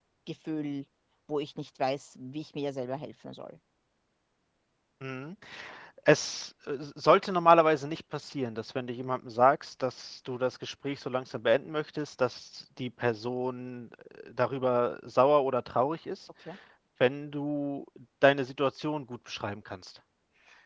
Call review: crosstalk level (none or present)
none